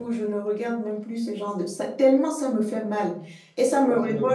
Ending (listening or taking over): listening